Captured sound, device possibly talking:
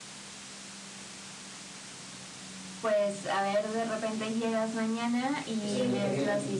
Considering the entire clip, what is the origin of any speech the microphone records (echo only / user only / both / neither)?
both